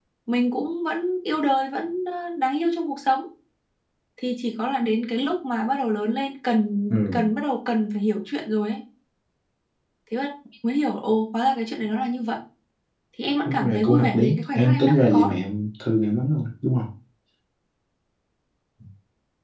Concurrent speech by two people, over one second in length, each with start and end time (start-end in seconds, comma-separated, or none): 13.4-15.4